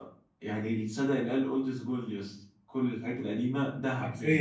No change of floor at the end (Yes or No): No